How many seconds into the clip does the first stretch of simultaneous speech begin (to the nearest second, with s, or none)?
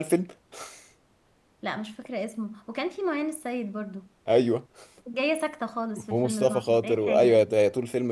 6 s